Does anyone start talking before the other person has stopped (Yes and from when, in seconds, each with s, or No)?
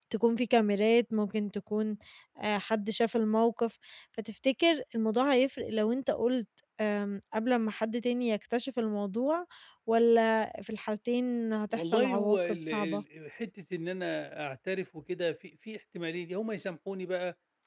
Yes, from 11.7 s